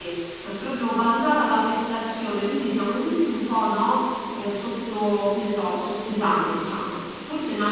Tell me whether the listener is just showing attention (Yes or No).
Yes